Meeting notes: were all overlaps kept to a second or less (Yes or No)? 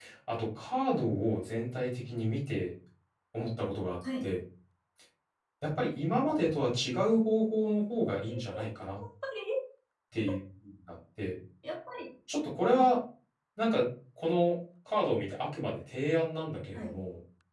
Yes